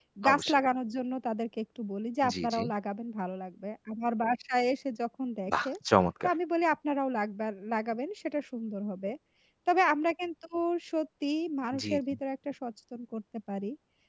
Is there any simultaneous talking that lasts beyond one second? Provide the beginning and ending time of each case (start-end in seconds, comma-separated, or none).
none